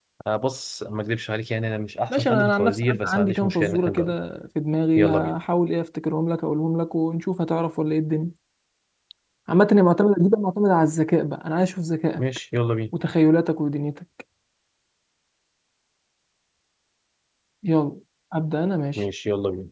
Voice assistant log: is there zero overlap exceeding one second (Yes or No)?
No